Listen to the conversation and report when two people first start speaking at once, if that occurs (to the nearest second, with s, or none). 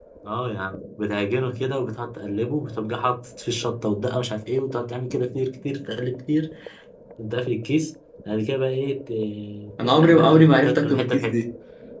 10 s